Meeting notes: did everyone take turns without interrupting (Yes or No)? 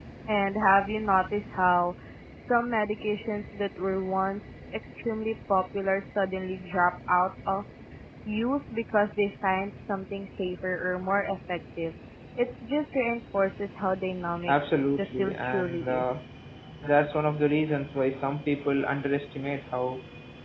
No